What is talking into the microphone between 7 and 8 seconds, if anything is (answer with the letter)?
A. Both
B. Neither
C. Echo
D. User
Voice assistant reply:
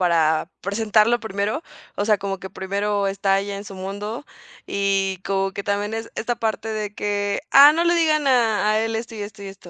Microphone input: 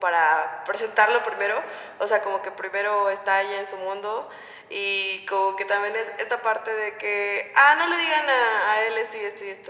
C